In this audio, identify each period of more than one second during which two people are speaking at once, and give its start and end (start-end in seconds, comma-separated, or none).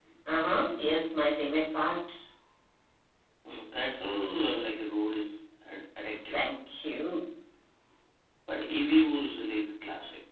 none